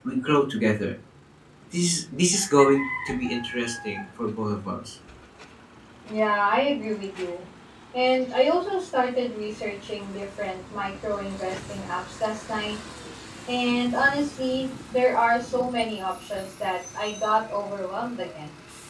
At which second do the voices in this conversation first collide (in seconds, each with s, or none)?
none